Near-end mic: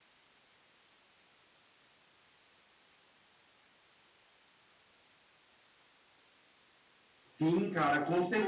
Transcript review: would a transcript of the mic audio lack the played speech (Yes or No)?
Yes